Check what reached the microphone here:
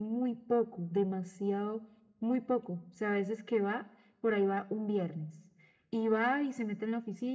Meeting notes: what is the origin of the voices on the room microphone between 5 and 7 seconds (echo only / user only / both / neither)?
echo only